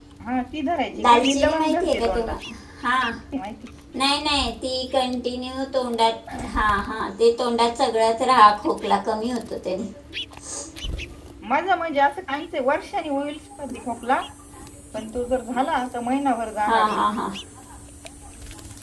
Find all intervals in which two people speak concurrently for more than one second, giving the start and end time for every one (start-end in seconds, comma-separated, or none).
1.0-2.4